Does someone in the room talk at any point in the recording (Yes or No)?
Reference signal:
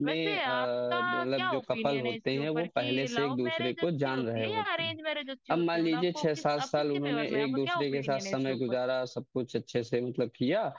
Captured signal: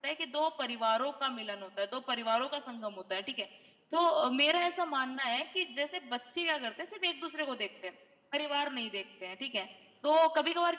Yes